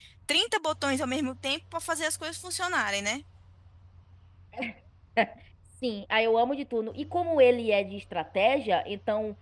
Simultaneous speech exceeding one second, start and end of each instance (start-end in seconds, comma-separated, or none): none